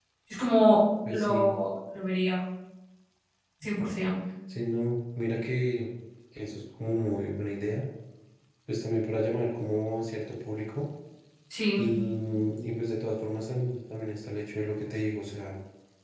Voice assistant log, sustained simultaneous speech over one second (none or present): none